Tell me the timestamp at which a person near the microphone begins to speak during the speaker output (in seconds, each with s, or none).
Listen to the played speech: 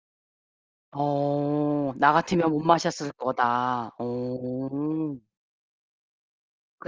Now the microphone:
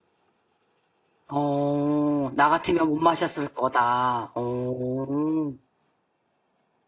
none